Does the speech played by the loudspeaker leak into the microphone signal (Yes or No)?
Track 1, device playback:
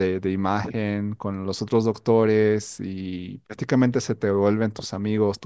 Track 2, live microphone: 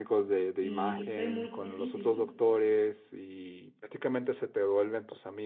Yes